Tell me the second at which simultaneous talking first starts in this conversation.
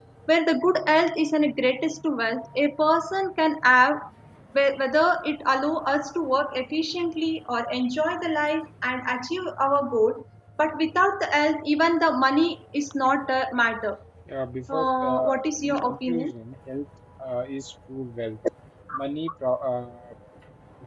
15 s

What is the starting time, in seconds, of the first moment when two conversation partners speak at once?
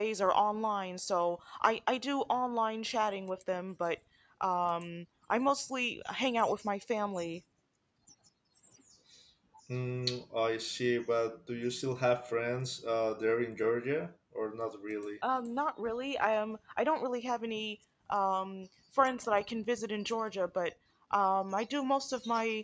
none

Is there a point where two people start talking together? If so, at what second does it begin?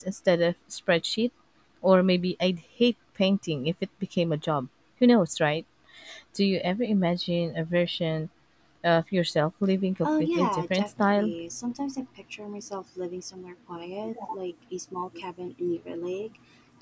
10 s

